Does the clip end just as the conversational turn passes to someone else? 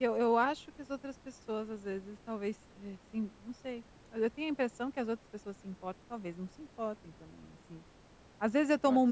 No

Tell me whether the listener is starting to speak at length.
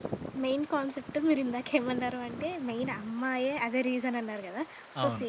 No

